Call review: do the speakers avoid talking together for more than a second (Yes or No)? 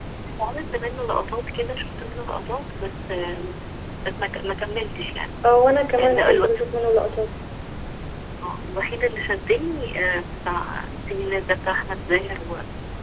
Yes